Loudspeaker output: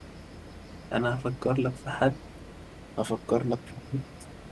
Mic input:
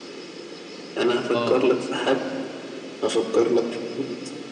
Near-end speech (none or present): present